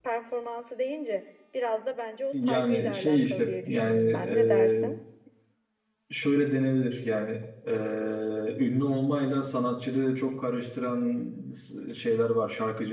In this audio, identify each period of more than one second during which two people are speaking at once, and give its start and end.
2.3-4.8

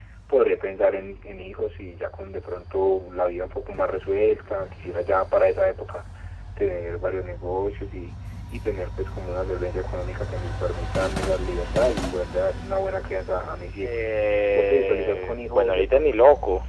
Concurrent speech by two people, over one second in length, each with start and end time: 14.5-16.1

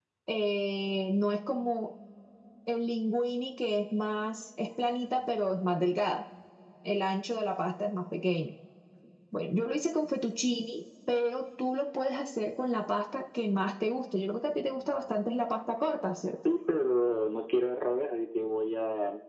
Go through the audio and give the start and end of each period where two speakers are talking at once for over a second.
none

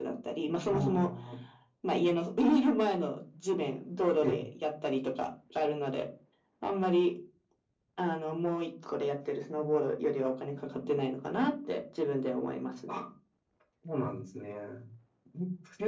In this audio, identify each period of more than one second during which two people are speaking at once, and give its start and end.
none

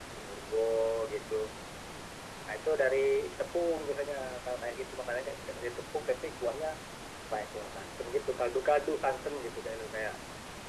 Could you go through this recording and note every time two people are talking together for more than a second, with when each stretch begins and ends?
none

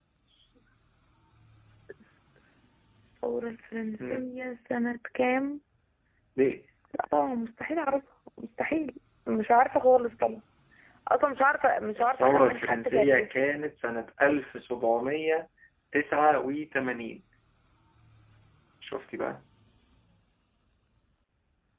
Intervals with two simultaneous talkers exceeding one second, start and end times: 12.0-13.4

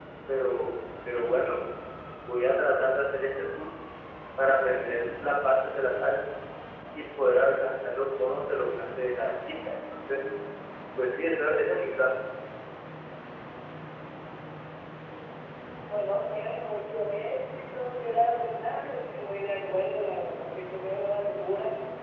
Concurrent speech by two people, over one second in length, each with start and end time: none

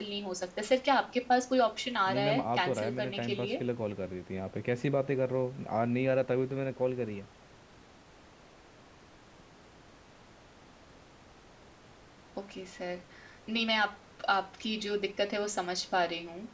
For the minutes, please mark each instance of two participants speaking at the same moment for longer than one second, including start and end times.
2.1-3.6

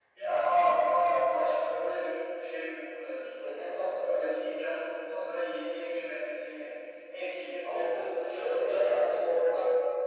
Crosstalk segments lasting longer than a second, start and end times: 7.6-9.3

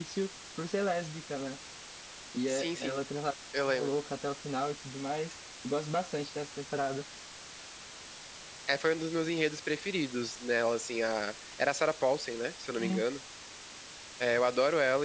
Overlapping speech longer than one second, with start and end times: none

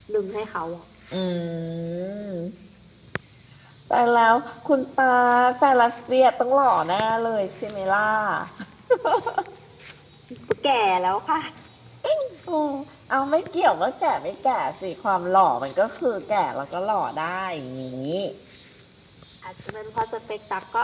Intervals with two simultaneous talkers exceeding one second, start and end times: none

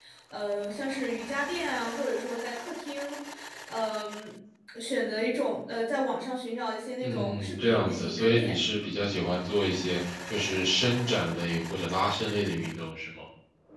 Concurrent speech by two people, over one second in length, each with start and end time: 7.0-8.6

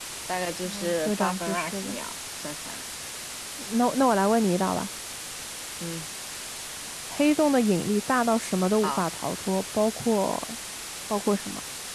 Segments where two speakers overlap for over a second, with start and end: 0.7-1.9

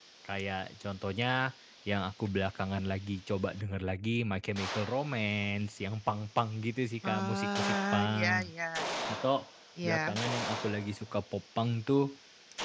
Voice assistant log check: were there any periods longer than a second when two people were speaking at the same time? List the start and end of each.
7.0-8.4

